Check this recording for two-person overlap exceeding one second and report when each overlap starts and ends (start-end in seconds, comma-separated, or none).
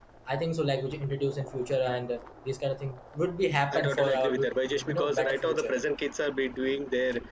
3.7-5.7